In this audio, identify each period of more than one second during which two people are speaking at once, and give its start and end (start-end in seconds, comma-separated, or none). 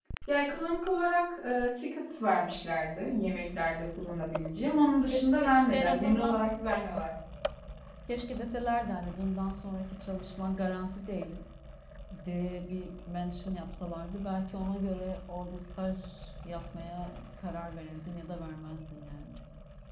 5.1-6.4